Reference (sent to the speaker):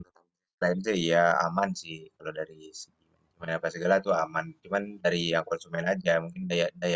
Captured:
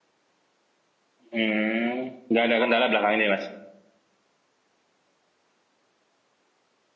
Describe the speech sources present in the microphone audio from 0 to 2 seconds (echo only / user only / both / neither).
user only